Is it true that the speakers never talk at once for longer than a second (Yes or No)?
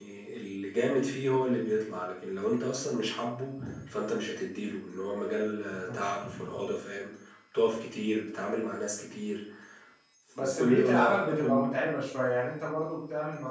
No